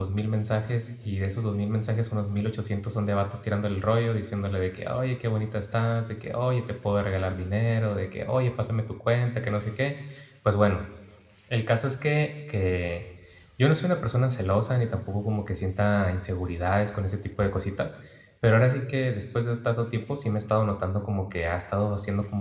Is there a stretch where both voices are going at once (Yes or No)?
No